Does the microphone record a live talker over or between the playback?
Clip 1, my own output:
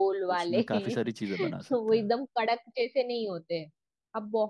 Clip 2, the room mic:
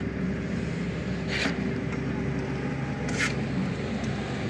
No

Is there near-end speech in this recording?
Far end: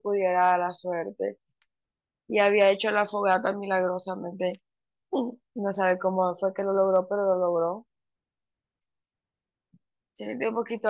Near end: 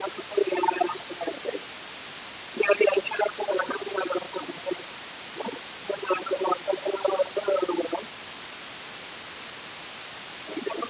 No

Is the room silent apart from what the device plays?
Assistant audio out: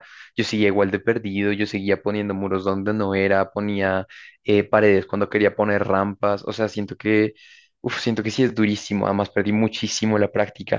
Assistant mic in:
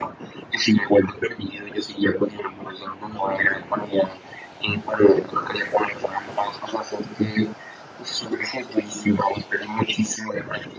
Yes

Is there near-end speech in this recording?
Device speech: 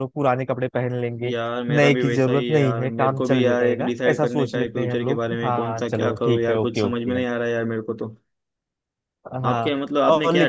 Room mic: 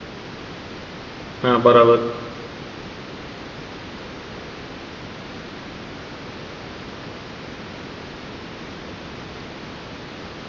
Yes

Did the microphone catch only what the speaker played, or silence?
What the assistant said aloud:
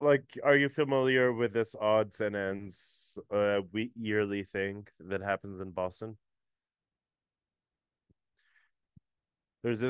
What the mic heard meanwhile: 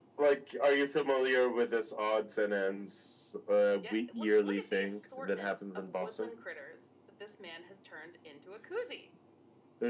No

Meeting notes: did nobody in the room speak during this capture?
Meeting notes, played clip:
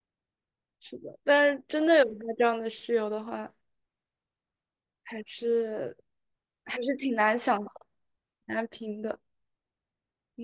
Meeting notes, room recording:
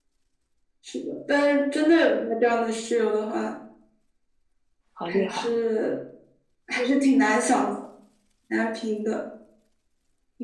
No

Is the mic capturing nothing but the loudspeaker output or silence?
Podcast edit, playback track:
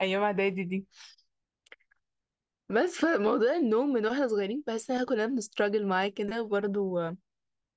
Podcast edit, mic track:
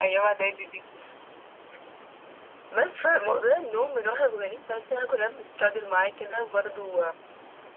Yes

